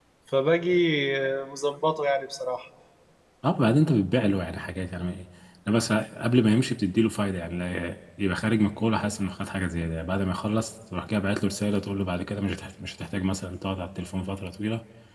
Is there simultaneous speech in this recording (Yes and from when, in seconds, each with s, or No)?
No